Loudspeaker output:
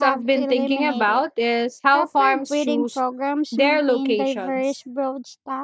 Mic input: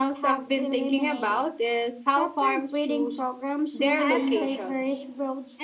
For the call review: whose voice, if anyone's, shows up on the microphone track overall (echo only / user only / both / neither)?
both